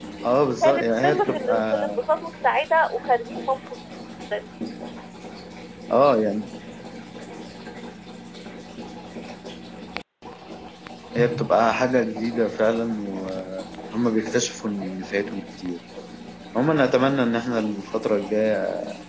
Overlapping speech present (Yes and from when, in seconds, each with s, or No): Yes, from 0.6 s